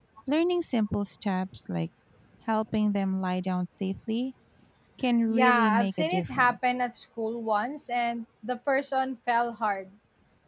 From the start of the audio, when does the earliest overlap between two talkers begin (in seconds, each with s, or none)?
5.3 s